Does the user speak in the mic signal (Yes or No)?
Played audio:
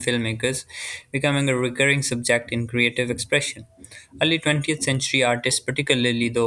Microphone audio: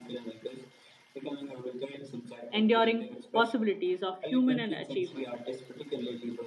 Yes